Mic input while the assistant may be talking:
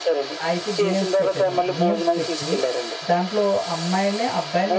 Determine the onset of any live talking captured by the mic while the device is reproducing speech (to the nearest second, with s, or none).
0 s